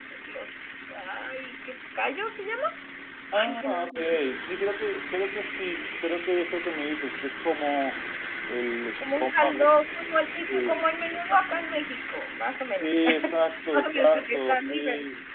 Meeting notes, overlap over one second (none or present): present